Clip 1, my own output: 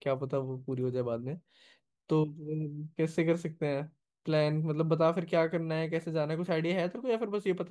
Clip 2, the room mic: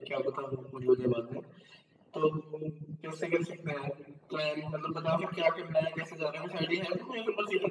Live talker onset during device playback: none

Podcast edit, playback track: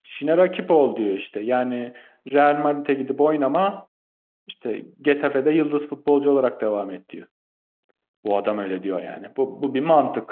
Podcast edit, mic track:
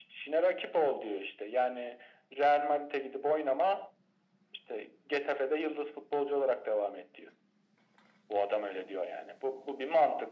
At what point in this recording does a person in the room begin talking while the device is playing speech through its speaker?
none

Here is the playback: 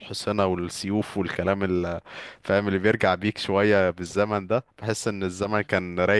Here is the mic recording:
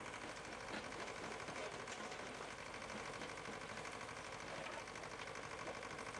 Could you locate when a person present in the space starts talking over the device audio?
none

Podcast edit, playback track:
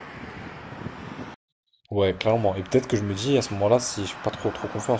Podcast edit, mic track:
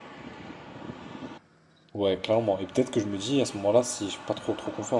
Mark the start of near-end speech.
none

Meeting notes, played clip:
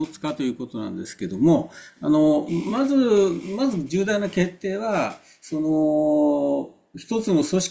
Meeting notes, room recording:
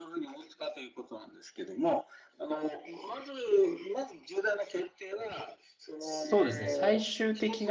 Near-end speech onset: 6.0 s

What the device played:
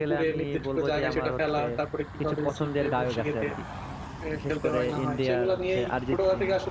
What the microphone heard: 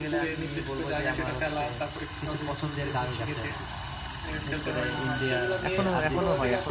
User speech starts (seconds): 5.7 s

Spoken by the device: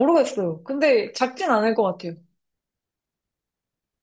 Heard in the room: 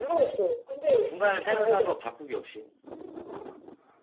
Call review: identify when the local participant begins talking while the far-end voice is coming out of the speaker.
1.0 s

